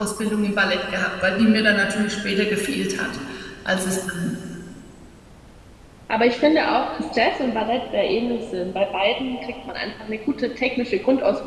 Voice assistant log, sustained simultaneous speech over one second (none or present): none